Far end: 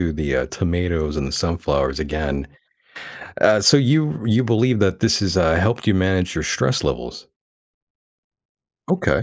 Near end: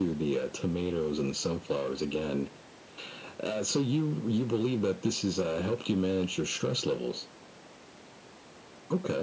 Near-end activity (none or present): none